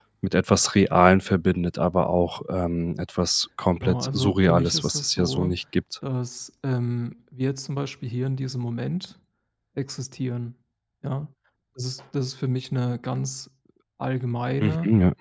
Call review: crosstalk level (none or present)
present